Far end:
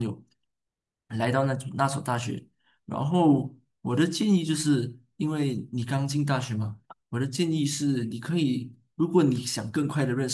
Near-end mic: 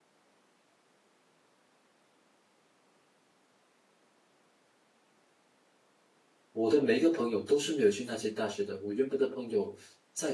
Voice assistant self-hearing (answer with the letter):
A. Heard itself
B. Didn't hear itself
B